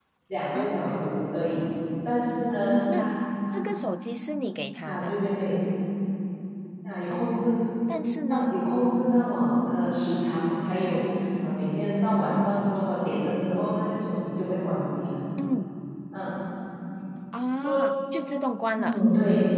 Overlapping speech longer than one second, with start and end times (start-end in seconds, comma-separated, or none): none